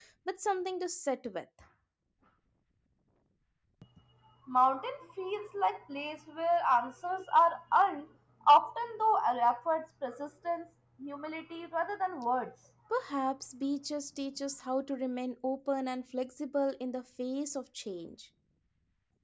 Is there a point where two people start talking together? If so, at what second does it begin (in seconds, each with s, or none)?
none